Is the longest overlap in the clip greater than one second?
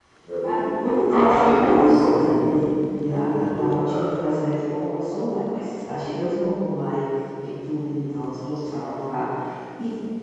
Yes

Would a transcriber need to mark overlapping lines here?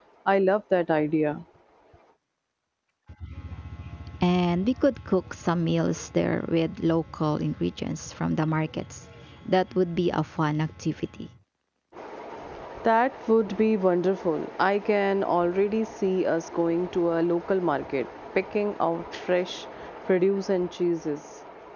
No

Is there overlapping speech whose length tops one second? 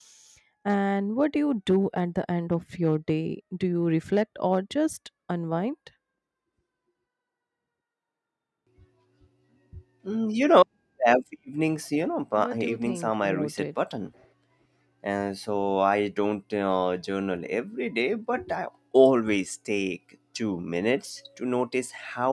Yes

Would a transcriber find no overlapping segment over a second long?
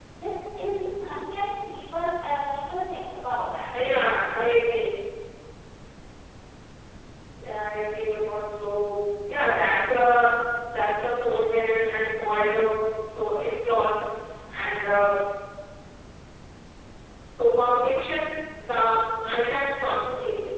Yes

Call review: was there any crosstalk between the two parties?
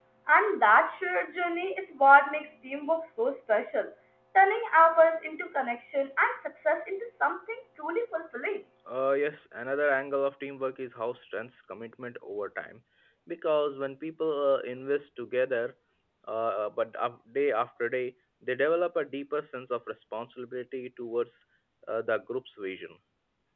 No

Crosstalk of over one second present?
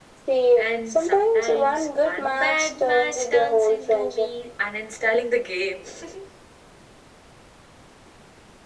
Yes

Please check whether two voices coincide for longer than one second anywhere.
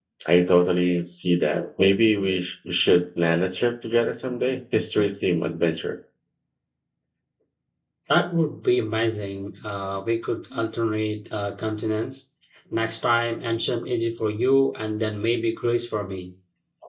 No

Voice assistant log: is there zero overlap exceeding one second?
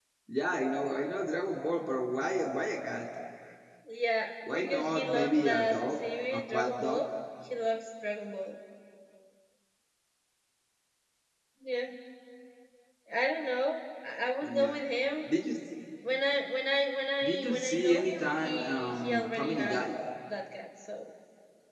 No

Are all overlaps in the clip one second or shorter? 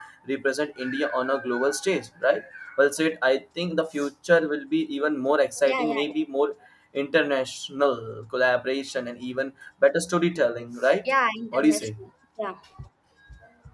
Yes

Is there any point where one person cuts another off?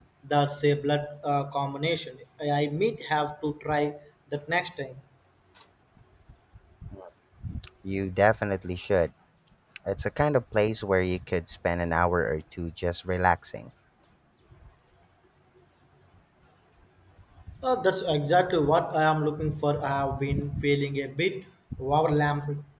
No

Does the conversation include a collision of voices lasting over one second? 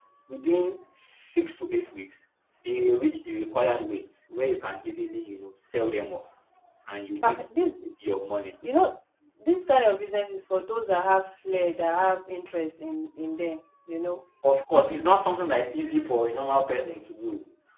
No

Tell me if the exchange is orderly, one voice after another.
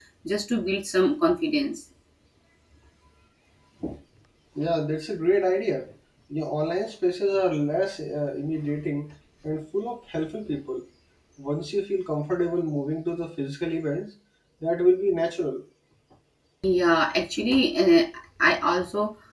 Yes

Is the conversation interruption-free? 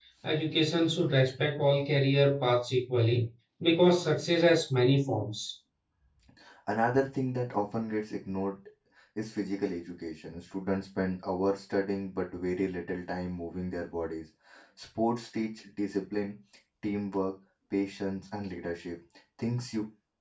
Yes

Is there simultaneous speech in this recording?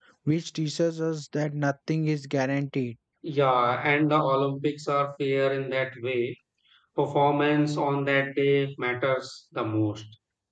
No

